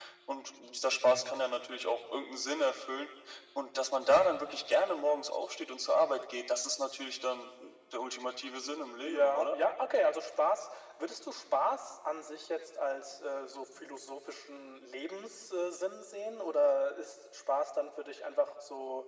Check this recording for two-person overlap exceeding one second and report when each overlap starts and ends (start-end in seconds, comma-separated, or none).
none